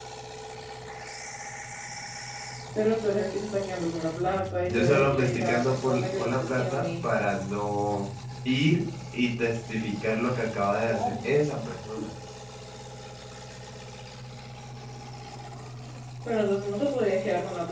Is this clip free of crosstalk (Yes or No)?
No